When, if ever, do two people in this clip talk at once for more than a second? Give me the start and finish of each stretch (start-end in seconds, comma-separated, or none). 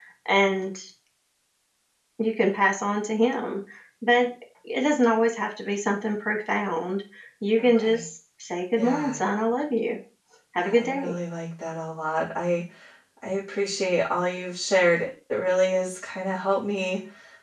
none